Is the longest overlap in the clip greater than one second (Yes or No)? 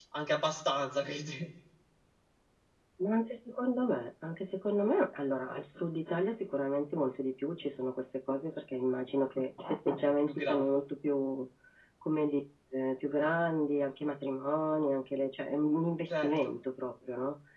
No